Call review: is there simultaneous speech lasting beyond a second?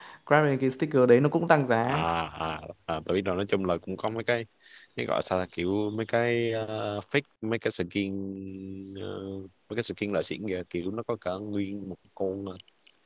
No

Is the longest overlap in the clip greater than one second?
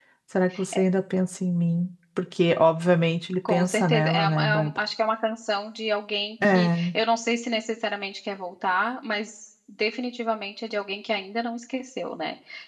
Yes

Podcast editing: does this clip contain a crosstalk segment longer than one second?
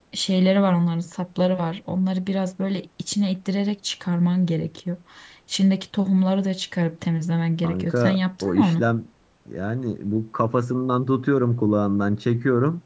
Yes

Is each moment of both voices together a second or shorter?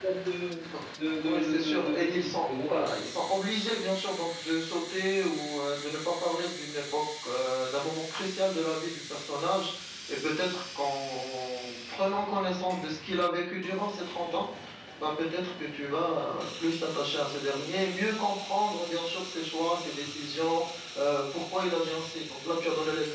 No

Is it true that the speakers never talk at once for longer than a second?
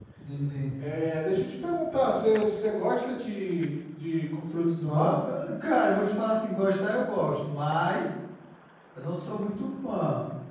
Yes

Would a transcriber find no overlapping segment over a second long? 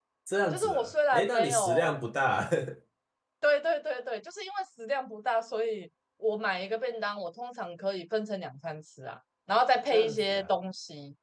No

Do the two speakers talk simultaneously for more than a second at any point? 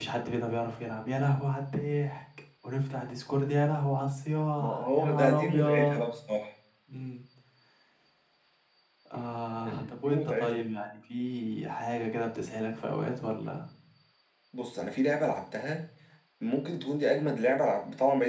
Yes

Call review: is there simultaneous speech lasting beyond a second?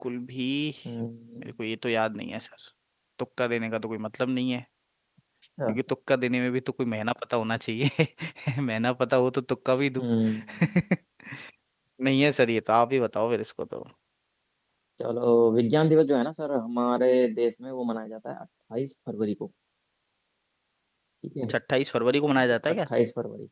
No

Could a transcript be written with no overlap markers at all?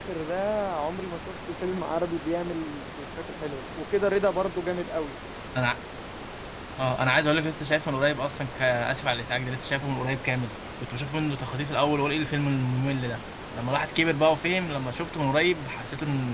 Yes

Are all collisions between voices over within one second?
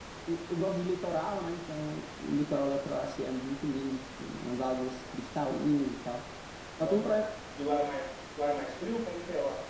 Yes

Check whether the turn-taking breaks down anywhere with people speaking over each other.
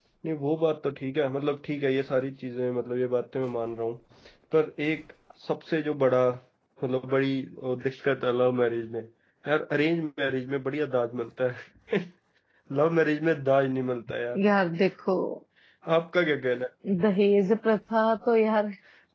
No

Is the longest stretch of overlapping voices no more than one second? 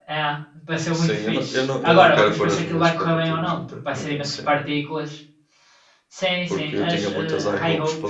No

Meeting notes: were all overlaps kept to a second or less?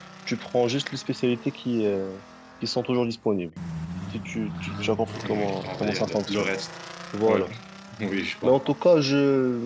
No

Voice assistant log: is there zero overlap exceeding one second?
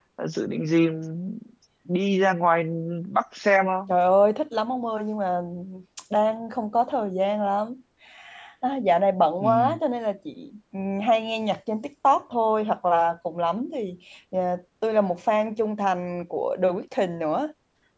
Yes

